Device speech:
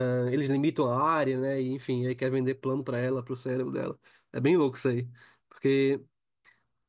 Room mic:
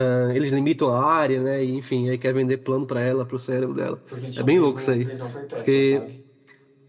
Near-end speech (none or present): present